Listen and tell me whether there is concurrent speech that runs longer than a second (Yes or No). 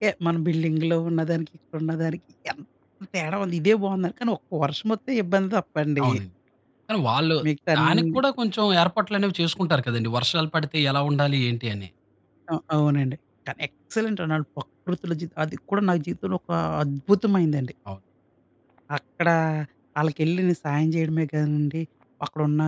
No